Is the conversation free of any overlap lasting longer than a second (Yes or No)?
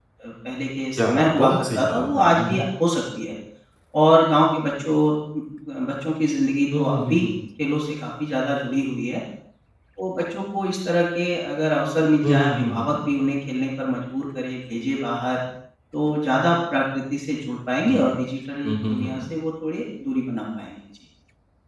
No